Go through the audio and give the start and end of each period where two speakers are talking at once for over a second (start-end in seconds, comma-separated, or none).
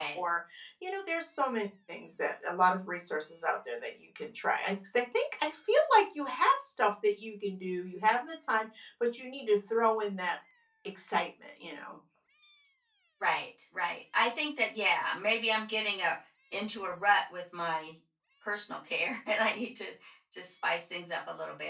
none